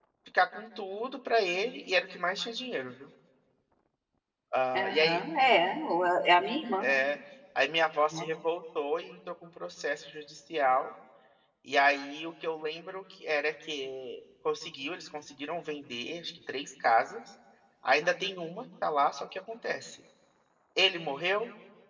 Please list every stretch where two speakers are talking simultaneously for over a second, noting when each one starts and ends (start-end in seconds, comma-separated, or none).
none